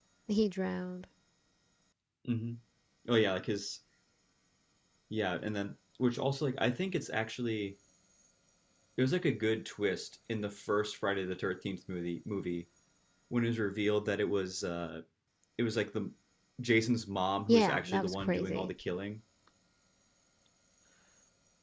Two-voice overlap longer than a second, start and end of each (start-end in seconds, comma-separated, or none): 17.5-18.7